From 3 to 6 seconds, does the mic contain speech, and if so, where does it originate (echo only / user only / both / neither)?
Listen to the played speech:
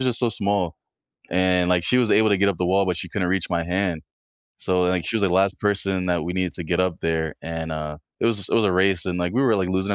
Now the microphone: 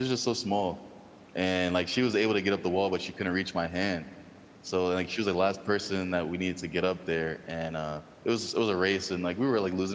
echo only